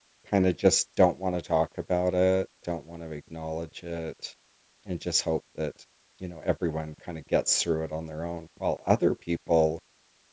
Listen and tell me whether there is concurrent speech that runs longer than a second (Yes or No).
No